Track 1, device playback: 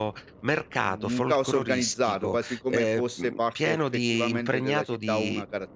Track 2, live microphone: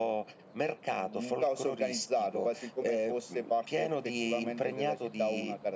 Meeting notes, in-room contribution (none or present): none